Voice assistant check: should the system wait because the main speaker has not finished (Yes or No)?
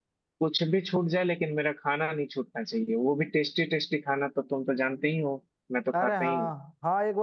No